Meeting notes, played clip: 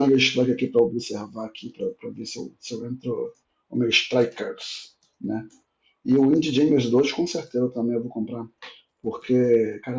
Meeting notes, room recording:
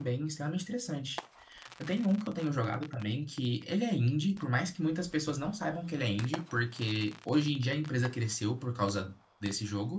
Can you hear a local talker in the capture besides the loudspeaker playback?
Yes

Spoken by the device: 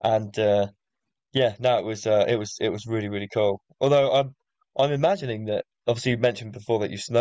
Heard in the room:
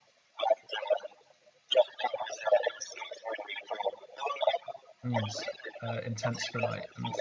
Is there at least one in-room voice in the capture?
Yes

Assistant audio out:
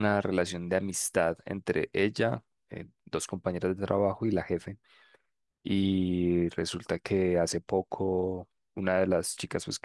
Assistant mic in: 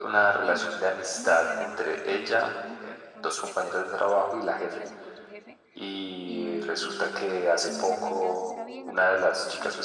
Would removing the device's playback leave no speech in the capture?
No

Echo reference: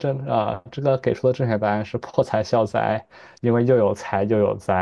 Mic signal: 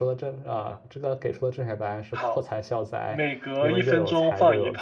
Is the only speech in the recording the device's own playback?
No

